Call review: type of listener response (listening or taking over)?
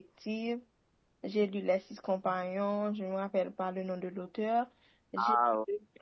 listening